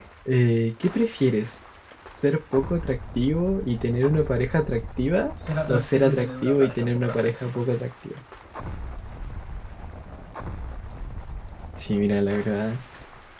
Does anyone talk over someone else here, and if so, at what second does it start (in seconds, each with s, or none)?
5.7 s